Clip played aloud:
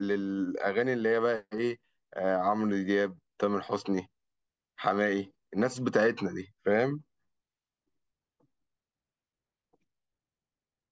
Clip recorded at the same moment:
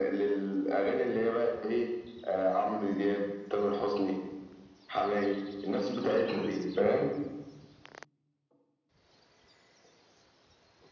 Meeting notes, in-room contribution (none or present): none